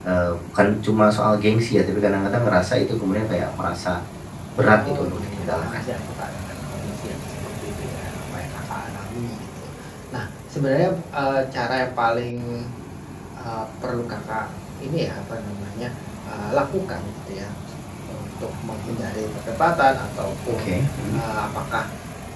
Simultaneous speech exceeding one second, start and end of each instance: 4.6-6.0

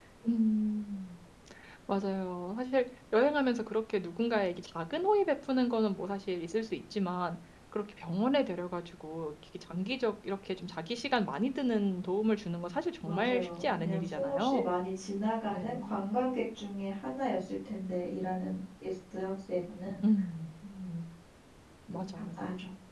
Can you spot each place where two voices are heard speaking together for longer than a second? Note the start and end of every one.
13.0-14.7

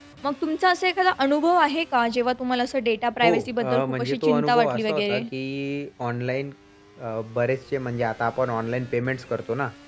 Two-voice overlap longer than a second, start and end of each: 3.2-5.2

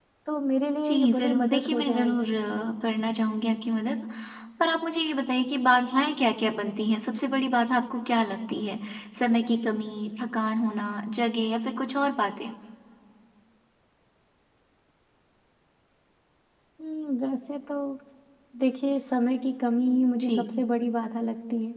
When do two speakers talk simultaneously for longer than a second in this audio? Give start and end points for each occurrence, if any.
0.8-2.3

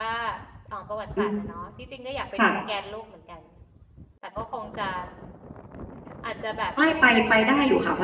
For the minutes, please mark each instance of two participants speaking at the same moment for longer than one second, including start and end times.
none

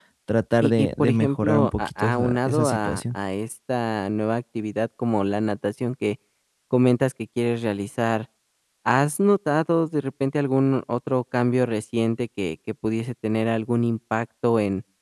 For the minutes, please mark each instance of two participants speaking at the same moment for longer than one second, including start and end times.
0.6-3.0

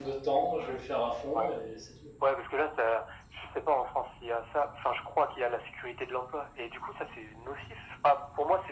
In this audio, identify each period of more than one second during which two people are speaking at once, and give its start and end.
none

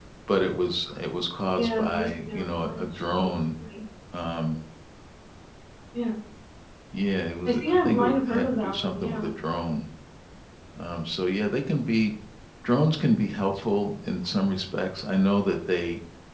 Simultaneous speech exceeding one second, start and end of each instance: 1.6-3.3, 7.5-9.3

